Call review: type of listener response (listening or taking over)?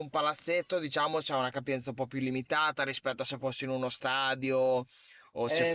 taking over